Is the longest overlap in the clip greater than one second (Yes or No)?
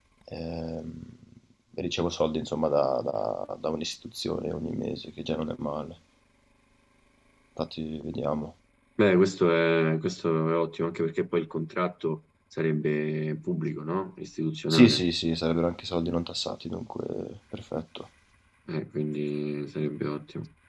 No